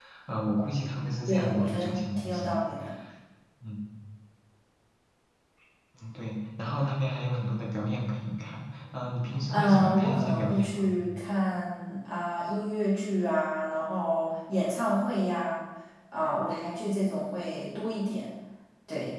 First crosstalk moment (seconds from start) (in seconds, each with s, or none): 1.3 s